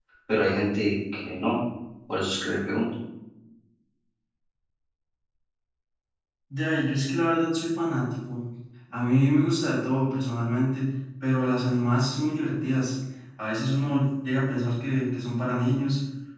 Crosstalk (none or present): none